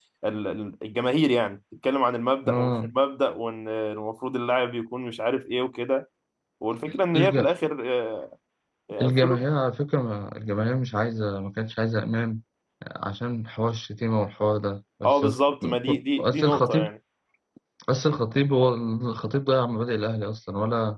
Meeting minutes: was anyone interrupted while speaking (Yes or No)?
Yes